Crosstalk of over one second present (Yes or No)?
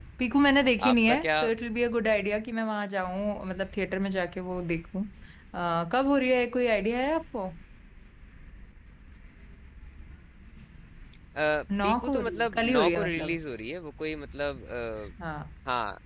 Yes